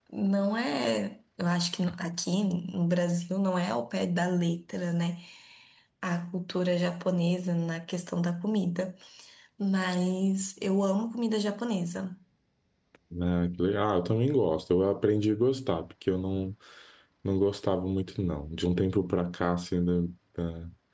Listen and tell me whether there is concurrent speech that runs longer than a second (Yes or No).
No